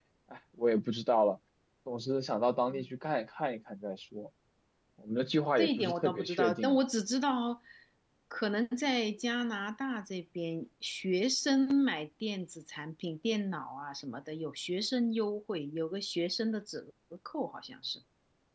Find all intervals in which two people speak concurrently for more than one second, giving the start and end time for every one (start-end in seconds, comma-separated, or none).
5.6-6.8